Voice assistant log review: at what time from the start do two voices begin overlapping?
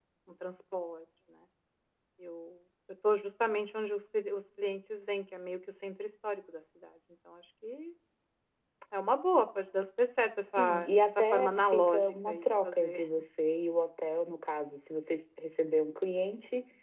11 s

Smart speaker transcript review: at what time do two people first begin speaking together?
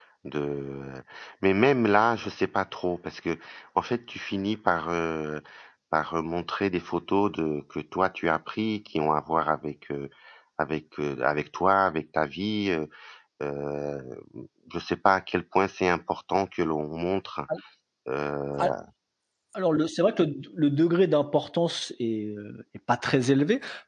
none

